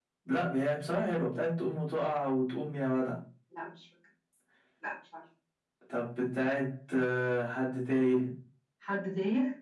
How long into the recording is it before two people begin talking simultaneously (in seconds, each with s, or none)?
none